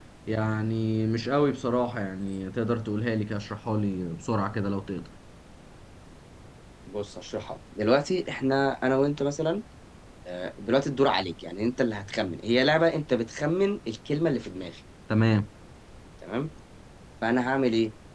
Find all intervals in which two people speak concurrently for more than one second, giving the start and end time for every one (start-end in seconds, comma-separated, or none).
none